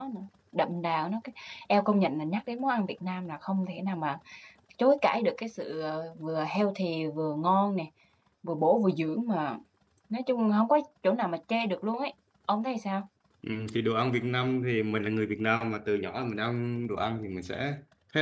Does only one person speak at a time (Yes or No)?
Yes